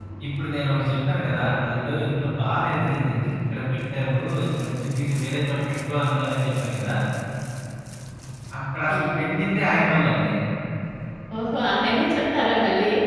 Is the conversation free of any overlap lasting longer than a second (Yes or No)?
Yes